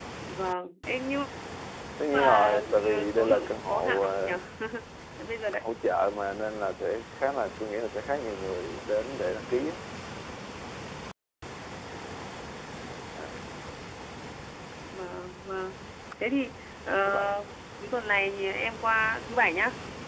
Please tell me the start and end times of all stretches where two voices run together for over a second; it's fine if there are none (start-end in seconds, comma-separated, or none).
2.1-4.3